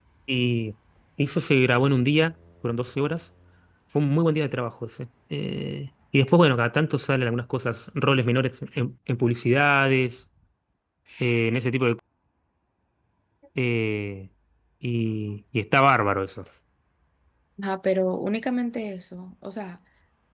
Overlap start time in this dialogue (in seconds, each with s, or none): none